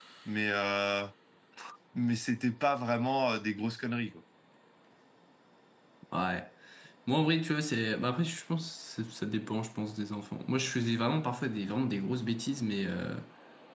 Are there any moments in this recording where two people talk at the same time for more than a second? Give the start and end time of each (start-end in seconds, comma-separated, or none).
none